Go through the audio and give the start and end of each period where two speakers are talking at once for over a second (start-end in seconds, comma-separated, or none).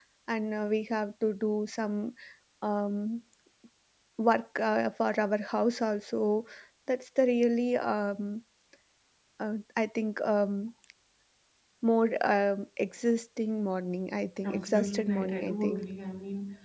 14.4-15.8